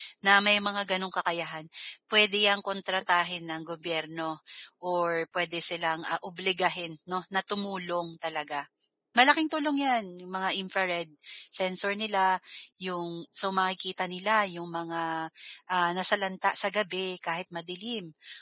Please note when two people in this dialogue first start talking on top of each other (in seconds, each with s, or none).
none